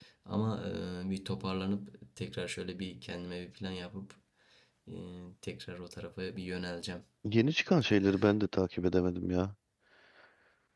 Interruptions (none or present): none